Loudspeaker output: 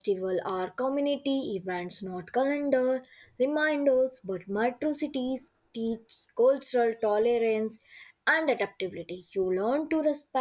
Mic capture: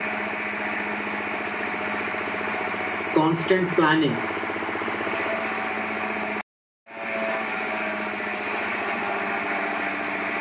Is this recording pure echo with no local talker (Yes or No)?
No